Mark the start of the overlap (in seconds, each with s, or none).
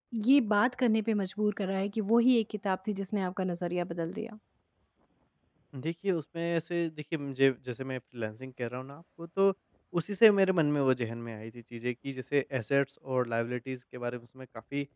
none